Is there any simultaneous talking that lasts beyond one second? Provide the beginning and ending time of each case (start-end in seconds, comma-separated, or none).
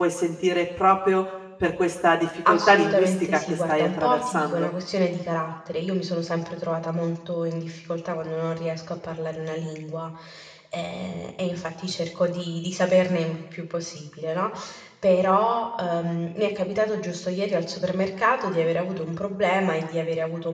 2.5-4.7